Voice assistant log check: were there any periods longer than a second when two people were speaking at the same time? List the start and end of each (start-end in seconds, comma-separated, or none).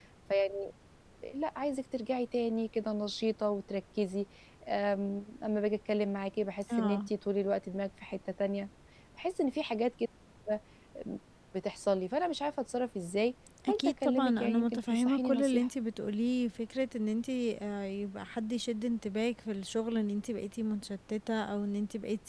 13.7-15.7